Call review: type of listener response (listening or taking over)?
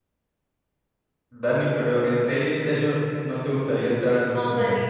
taking over